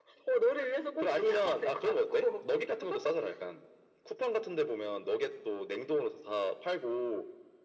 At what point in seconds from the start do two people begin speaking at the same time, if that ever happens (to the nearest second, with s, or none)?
1 s